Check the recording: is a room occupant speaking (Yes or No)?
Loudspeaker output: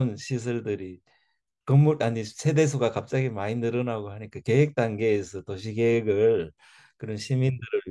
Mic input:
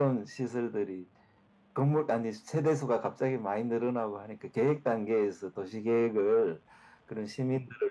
No